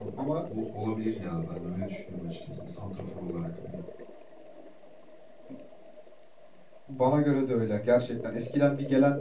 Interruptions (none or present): none